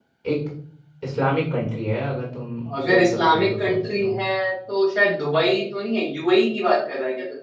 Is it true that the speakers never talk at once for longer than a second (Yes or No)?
No